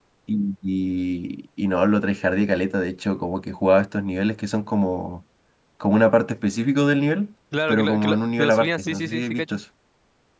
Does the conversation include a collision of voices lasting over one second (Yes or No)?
Yes